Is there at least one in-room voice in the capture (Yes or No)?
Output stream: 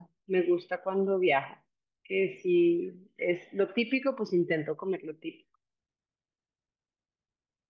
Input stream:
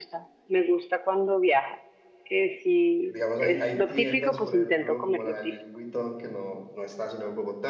Yes